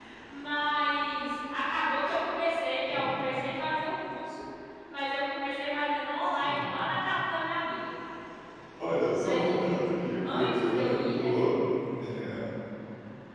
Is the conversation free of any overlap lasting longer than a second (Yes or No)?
No